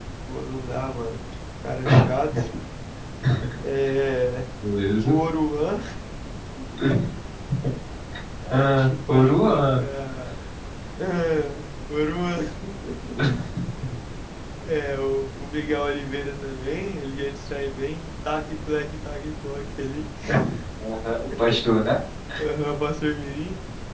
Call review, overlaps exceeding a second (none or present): present